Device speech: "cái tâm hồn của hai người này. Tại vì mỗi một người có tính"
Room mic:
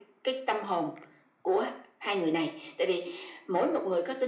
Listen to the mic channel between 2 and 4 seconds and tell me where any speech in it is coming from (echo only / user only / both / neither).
echo only